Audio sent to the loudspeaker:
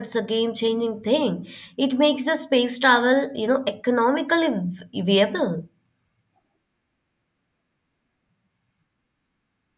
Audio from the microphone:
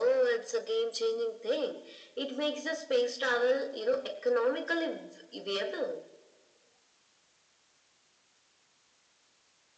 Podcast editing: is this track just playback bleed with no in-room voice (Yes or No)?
Yes